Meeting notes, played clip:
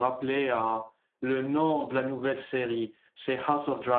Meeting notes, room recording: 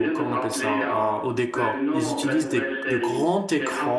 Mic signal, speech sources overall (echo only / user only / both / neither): both